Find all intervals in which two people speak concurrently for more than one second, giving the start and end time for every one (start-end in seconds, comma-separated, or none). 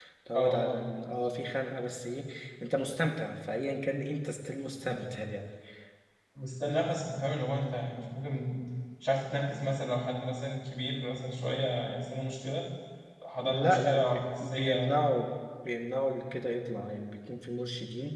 13.4-14.9